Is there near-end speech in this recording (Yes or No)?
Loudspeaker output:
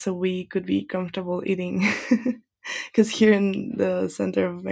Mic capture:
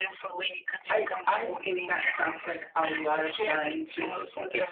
Yes